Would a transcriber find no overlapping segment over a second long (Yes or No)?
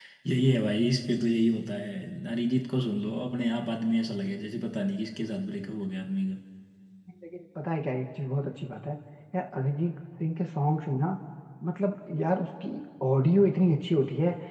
Yes